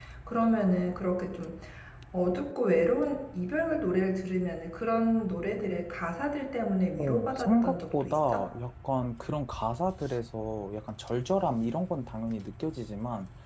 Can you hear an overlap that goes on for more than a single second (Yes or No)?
Yes